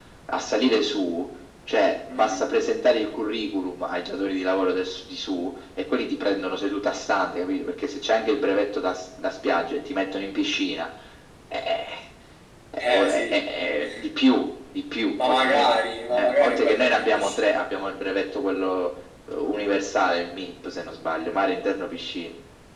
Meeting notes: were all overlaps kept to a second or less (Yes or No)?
No